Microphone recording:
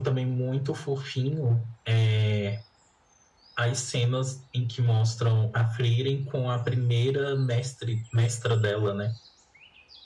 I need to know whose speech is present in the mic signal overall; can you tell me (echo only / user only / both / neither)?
echo only